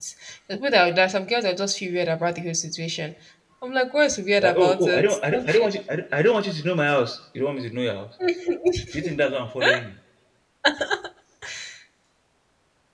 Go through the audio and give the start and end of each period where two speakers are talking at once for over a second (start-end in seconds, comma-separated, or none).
4.4-5.7